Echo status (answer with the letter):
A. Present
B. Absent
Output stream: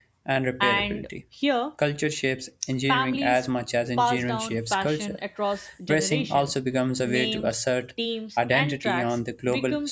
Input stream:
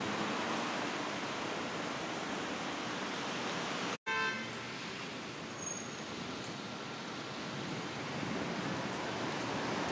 B